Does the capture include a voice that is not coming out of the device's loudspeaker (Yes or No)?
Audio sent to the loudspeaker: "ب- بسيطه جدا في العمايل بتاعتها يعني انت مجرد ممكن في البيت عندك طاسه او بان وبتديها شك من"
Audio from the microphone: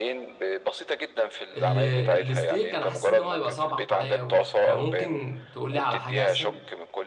Yes